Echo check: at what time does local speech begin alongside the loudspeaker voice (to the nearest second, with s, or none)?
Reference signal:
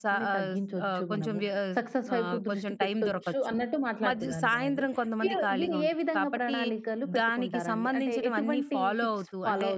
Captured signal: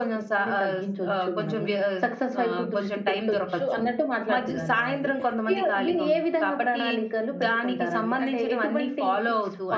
none